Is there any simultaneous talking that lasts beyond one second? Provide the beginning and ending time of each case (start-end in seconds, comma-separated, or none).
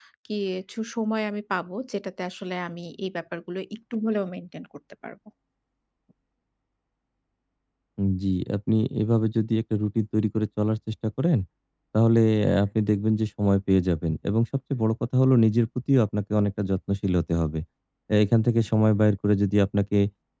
none